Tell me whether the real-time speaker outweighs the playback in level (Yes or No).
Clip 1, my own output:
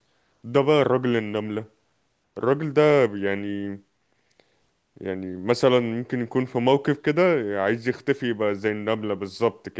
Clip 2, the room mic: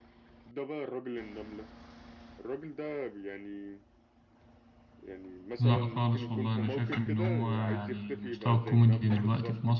Yes